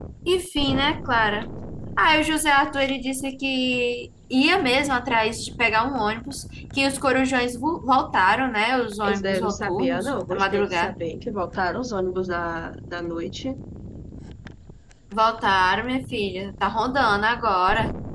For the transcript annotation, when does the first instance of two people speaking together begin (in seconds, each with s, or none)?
9.0 s